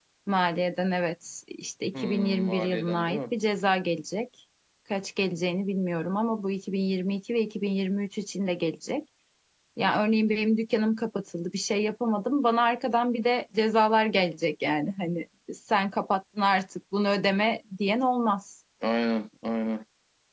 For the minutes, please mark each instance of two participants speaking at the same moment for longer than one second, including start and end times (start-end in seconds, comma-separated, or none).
1.9-3.2